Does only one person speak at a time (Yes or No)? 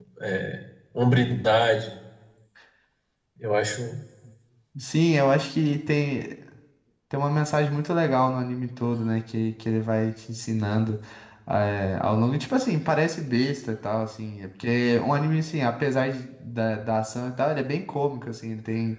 Yes